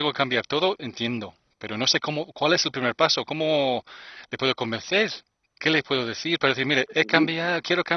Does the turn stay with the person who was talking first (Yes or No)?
Yes